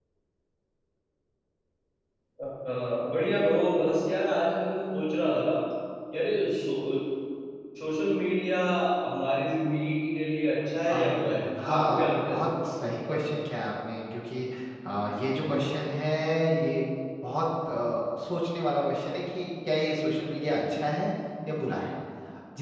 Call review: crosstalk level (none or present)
present